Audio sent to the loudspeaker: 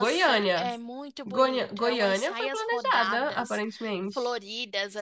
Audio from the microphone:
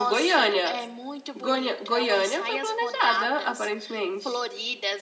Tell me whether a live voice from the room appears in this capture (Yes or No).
No